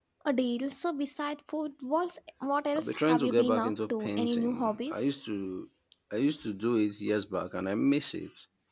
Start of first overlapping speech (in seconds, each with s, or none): 2.8 s